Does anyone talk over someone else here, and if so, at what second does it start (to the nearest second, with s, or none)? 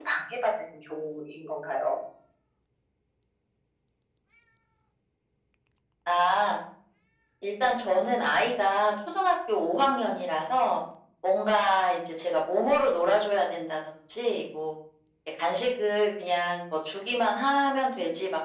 none